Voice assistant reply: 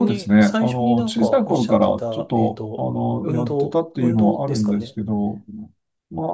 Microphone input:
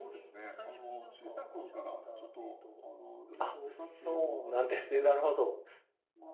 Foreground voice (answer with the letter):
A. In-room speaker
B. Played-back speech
A